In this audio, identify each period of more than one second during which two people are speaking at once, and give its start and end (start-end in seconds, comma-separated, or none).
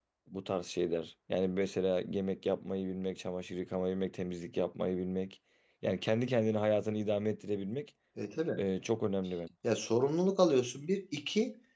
none